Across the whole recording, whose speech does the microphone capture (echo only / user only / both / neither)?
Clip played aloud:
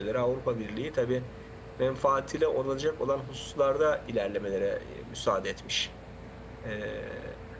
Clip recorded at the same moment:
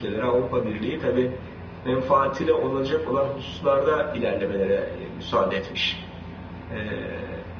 echo only